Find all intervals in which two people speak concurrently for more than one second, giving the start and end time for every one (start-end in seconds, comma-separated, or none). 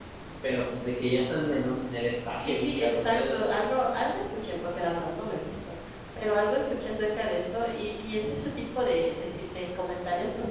2.4-3.6